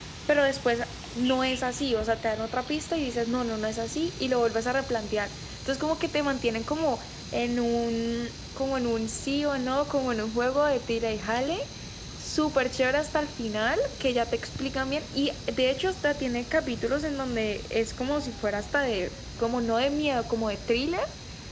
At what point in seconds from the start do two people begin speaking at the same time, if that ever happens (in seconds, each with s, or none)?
none